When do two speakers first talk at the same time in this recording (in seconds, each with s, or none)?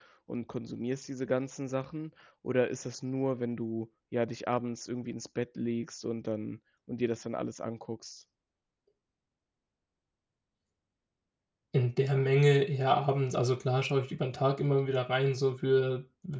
none